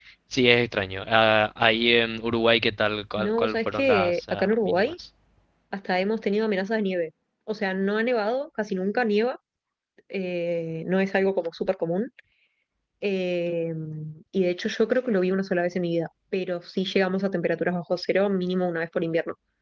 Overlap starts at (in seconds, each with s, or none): 3.2 s